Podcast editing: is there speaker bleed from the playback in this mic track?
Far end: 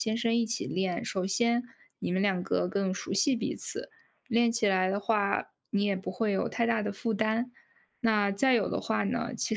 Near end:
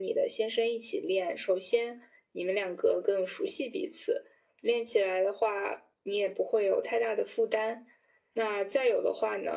Yes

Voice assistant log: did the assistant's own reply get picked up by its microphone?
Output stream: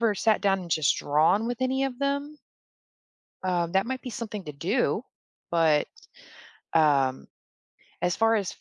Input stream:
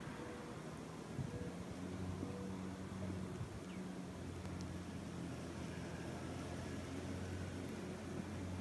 No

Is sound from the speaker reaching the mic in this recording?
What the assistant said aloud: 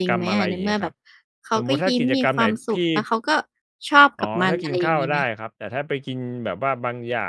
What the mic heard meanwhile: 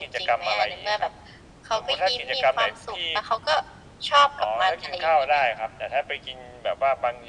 Yes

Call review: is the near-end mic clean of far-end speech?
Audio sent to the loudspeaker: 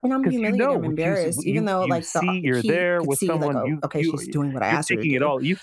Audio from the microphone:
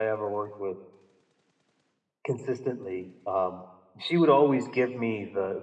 Yes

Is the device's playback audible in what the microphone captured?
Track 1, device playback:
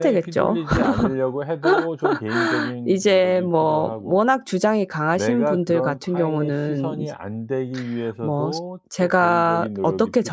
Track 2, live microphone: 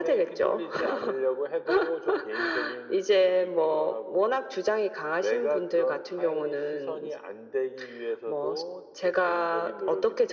Yes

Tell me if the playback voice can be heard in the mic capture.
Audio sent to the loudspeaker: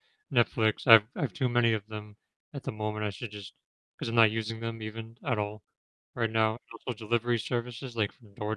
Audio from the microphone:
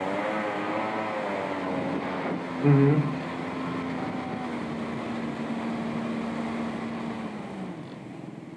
No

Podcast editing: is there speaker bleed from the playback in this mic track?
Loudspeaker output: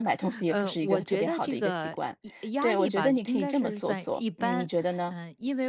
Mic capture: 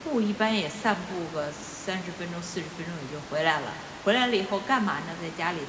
No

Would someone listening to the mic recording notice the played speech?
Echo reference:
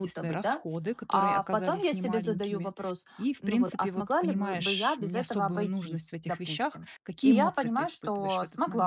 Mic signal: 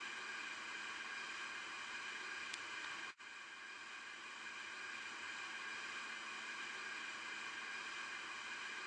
No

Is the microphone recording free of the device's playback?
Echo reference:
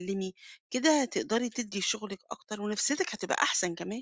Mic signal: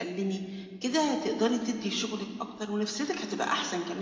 No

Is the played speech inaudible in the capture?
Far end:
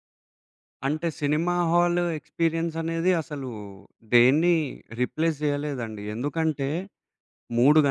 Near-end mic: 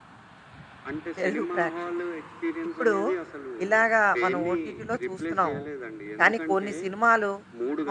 No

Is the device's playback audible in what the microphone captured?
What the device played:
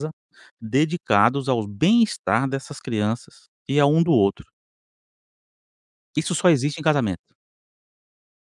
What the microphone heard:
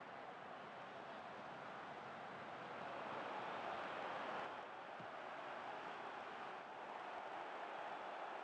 No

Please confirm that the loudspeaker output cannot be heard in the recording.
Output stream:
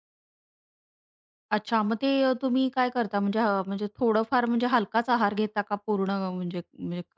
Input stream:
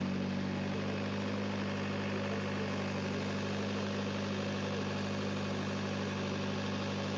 Yes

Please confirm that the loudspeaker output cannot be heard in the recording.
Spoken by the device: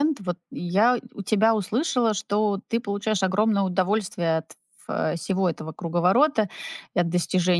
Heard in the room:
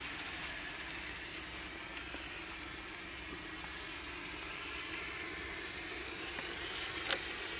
Yes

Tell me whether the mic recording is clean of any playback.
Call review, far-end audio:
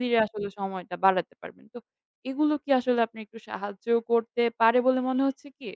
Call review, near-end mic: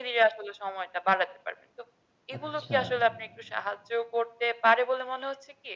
No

